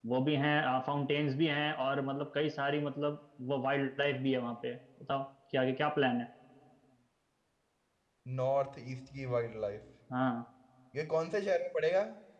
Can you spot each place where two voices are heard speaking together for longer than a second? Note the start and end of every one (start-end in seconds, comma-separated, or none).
none